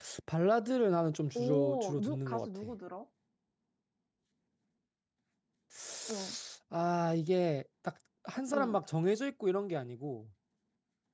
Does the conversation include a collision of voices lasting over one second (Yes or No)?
Yes